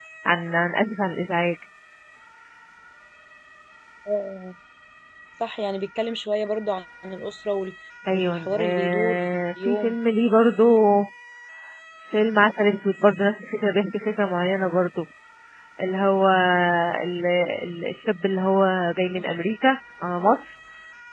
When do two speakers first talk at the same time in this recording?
8 s

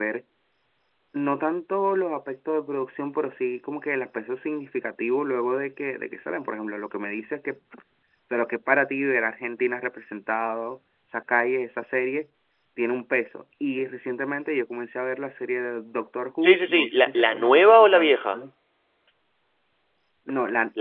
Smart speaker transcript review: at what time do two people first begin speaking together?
16 s

